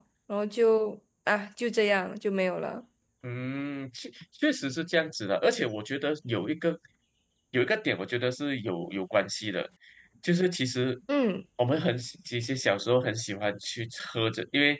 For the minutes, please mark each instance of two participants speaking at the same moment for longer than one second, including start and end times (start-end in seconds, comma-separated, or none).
none